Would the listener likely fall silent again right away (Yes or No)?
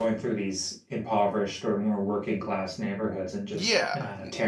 No